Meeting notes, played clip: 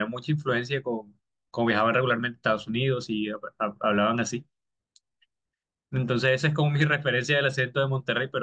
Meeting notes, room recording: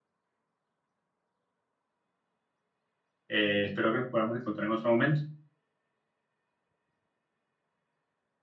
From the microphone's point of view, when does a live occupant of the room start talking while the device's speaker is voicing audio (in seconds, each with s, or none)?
3.3 s